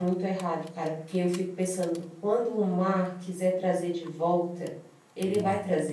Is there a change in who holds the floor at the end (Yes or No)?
No